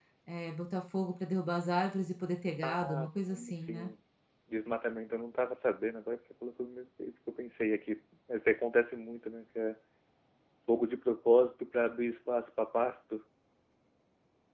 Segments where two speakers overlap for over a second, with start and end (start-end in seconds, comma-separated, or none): 2.6-3.9